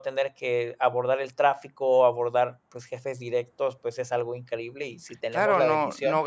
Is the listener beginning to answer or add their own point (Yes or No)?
Yes